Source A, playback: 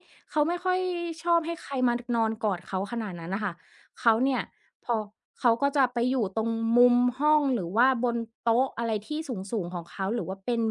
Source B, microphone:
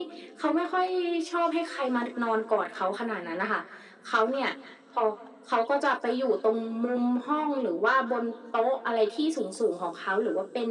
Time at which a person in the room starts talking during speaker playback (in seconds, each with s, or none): none